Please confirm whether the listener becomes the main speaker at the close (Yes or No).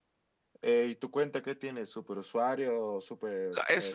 Yes